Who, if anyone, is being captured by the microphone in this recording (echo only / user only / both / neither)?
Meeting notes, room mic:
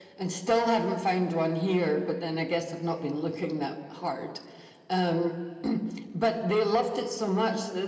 echo only